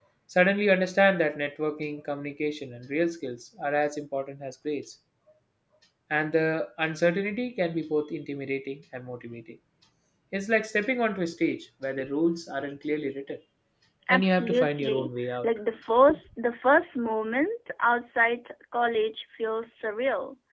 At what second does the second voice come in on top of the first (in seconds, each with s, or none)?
14.1 s